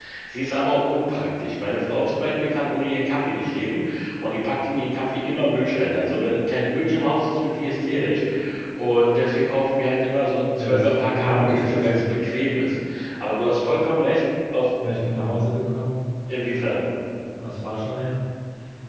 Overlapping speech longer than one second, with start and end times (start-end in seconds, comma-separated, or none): 10.6-12.0